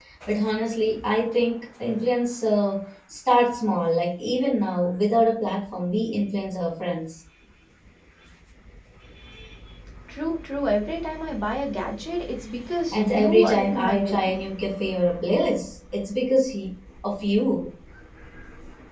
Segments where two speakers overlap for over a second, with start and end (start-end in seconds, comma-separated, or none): 12.9-14.4